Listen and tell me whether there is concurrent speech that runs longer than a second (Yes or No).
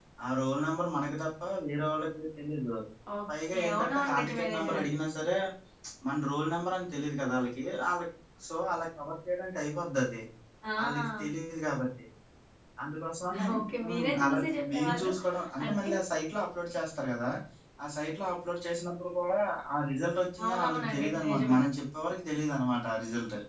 Yes